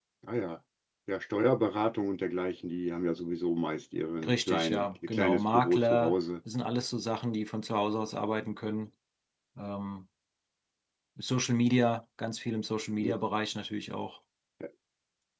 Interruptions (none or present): present